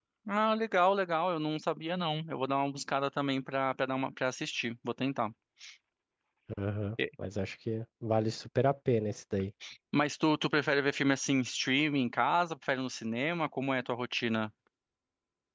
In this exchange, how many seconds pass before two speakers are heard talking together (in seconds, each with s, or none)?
none